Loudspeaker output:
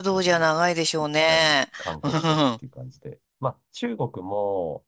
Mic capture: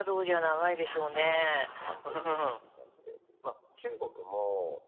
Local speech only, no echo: 何万ですか

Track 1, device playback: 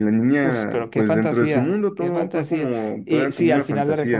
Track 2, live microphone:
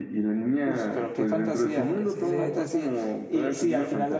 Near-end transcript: no como que sí es de él.

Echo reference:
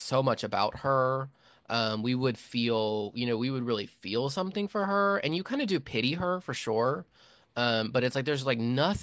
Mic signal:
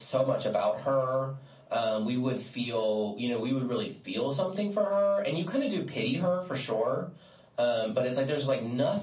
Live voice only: none

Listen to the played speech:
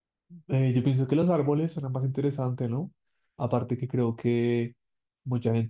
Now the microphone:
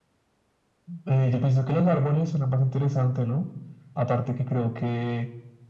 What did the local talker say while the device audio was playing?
none

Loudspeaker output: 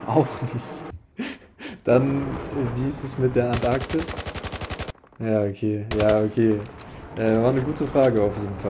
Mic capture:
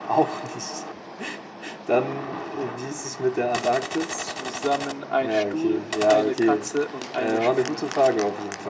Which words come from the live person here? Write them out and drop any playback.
zusammen ein Stuhl, eine Katze und eine Spinne?

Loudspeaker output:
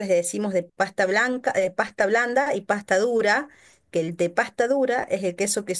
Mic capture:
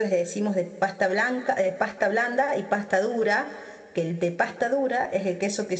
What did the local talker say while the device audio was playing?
none

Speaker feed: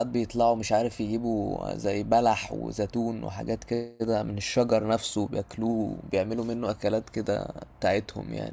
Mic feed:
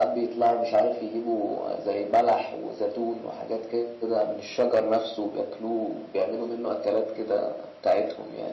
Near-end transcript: none

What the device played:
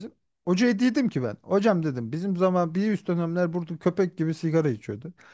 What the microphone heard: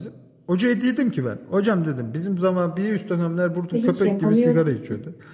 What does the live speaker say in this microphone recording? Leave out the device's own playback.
ve hiç yapamıyorum.

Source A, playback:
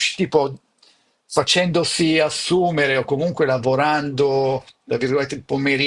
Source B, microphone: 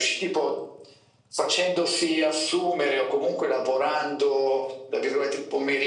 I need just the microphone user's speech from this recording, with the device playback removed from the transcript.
none

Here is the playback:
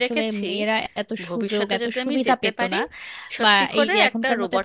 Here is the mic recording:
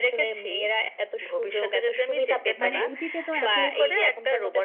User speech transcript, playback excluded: মানে অতীতে তো এত

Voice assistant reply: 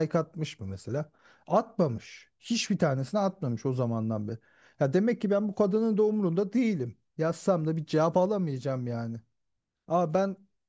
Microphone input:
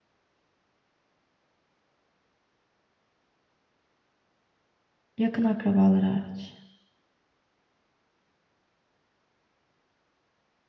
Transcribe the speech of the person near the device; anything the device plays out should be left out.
Yakın akrabalar hariç.

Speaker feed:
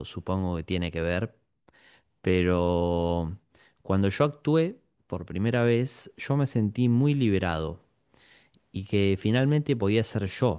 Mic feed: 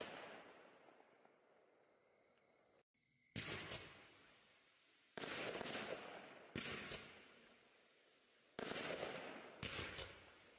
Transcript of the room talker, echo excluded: none

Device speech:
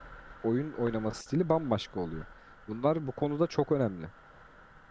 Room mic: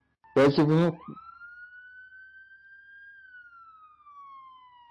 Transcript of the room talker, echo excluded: Belki bunu

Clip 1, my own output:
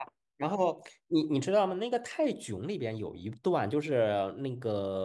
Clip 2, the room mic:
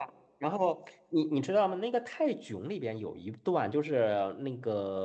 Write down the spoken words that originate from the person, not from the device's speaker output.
none

